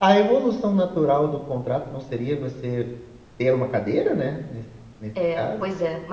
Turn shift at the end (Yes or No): Yes